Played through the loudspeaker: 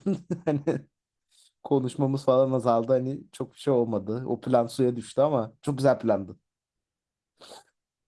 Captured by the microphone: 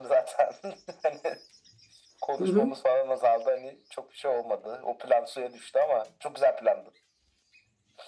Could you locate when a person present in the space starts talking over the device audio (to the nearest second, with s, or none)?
2 s